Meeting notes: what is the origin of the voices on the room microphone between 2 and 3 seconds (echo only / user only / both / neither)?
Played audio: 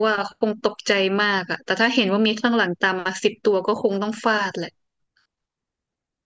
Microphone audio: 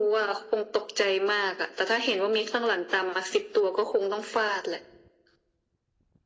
echo only